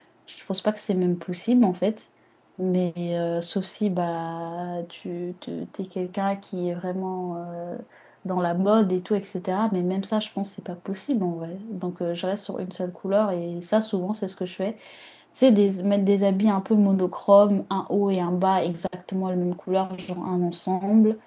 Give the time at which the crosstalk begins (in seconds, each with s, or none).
none